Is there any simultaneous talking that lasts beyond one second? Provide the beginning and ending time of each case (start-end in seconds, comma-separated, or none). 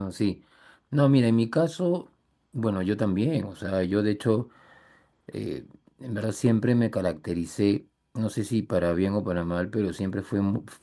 none